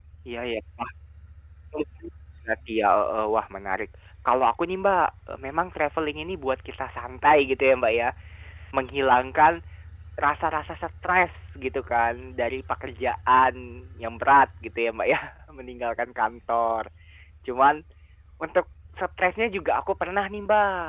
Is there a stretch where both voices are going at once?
No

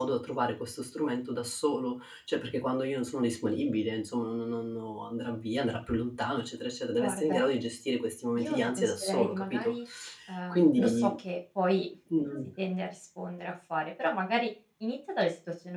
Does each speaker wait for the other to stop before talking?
No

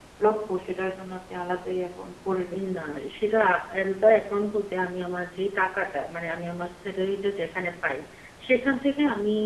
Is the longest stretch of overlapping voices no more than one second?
Yes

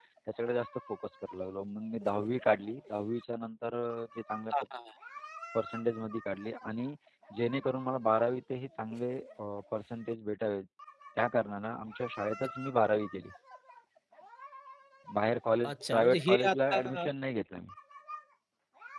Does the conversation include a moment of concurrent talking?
Yes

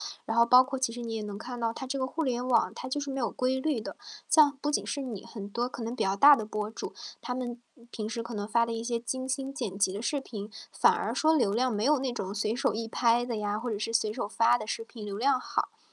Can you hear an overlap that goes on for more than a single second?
No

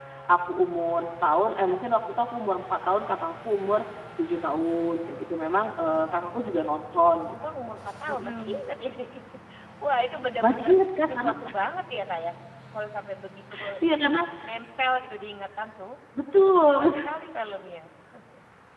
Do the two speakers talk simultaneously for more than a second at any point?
Yes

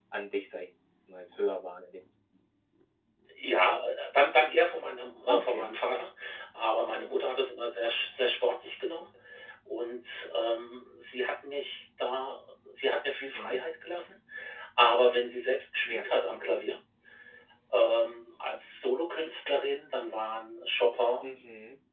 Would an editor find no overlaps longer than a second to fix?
Yes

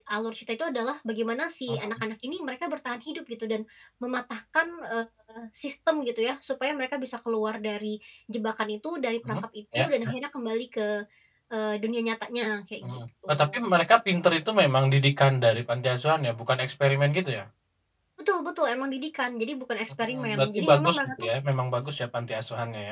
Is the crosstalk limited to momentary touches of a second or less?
No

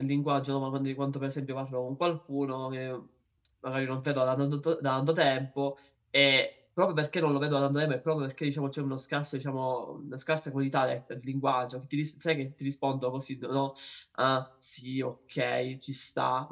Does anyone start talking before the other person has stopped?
No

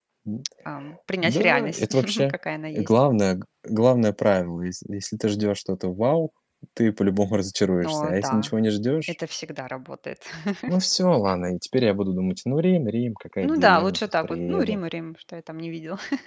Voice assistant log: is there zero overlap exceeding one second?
No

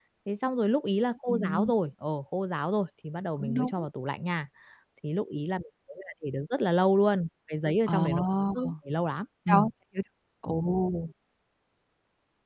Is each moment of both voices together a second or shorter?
Yes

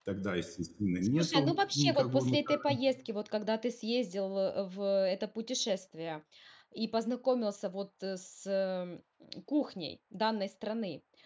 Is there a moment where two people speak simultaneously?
Yes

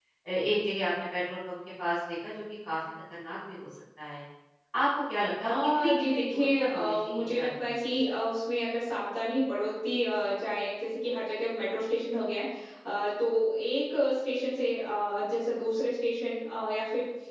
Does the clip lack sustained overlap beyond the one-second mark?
No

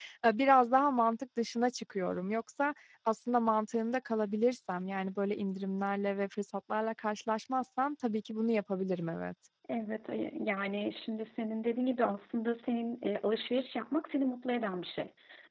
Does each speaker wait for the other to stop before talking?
Yes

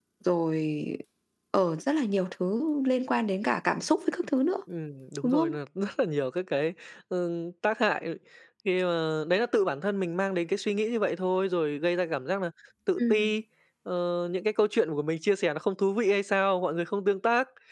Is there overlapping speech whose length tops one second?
No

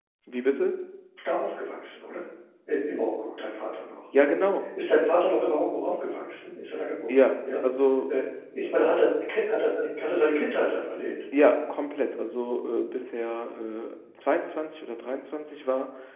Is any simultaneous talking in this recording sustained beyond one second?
No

